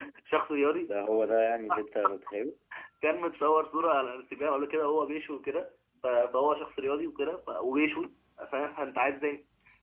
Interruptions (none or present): none